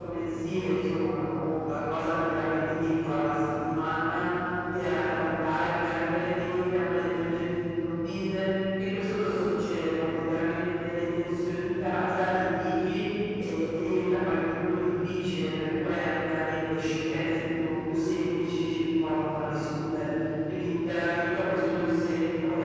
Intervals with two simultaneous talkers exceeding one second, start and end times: none

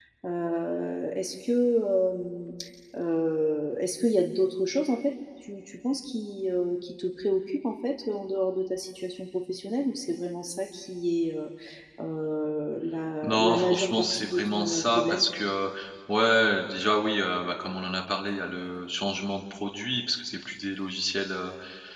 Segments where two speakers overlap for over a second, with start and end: 13.2-15.3

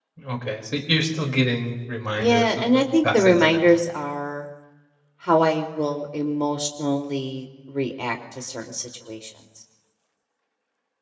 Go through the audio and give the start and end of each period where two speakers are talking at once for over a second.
2.2-3.6

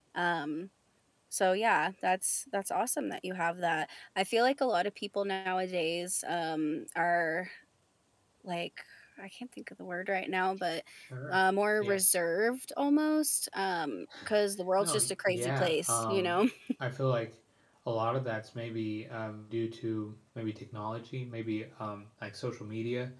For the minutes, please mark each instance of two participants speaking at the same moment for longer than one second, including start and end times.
14.8-16.4

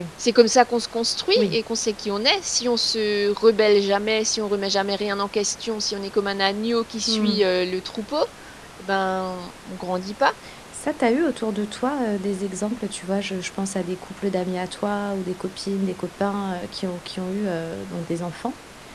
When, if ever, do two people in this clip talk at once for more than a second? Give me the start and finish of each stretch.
none

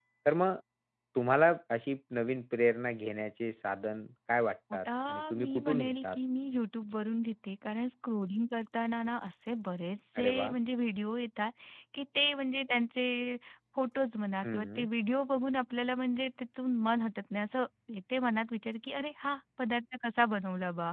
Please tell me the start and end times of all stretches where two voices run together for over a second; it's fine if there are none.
4.8-6.2

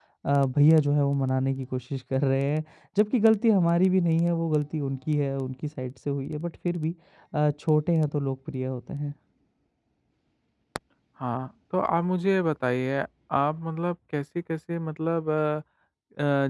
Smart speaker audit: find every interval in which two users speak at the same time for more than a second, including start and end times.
none

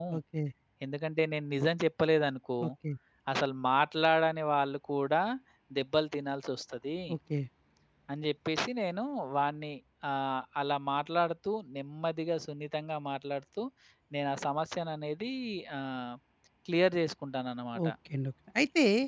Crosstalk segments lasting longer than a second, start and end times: none

